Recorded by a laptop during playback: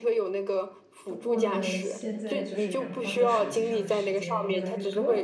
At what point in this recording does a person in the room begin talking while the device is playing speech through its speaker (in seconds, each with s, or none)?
1.1 s